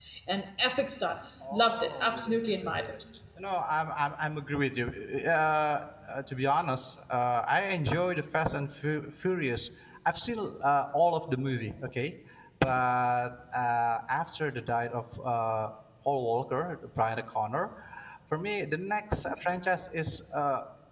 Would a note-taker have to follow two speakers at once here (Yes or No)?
Yes